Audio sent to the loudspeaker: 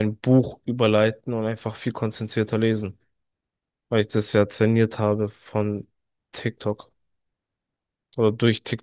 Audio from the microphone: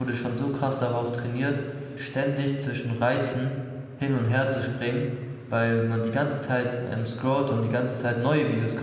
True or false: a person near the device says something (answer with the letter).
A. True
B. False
A